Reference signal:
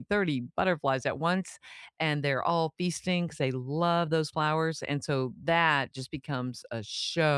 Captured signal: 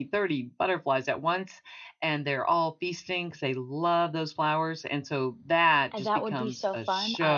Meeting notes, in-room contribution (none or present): present